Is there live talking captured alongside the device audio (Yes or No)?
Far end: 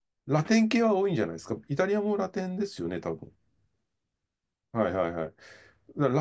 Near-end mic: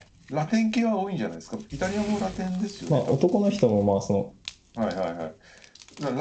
Yes